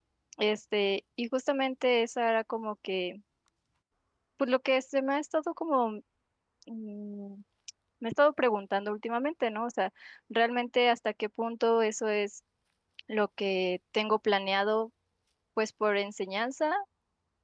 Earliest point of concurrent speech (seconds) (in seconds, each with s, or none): none